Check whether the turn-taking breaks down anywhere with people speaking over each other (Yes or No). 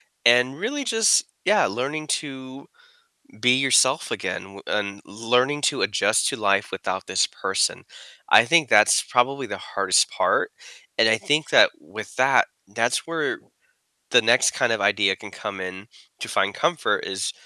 No